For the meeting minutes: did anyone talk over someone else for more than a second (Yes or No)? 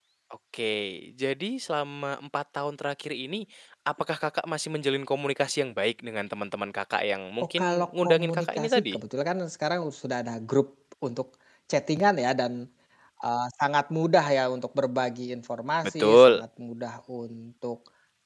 Yes